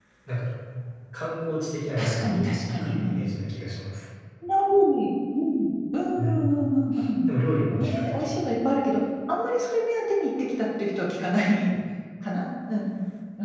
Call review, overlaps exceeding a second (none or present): present